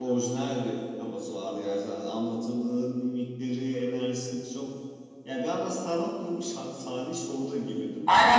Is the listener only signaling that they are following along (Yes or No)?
No